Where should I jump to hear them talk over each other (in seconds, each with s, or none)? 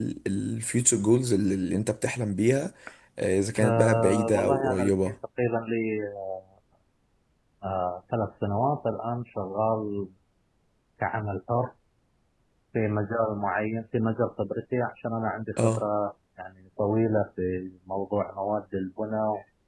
3.6 s